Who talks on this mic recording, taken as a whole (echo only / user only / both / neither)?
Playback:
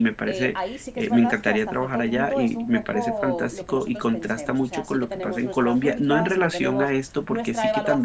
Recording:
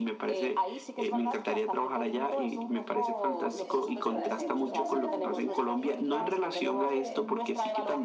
both